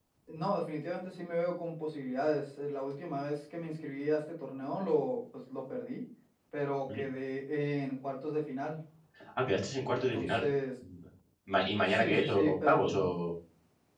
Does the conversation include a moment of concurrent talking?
Yes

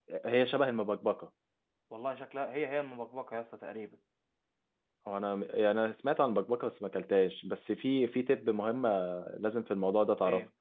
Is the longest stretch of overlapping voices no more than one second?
Yes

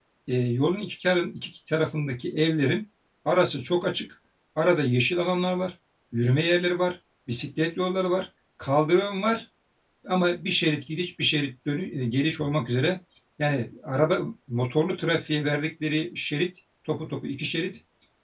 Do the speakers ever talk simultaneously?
No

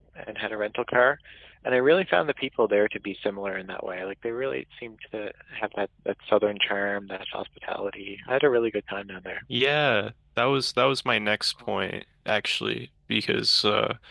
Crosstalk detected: No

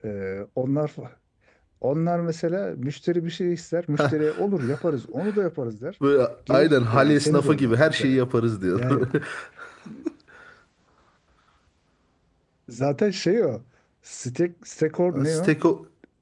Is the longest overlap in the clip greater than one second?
Yes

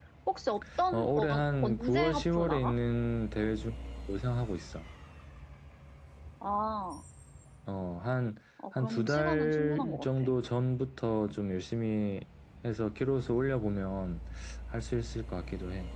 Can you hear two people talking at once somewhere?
Yes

